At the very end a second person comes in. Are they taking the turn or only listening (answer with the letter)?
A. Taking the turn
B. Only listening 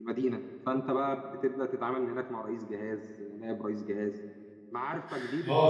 A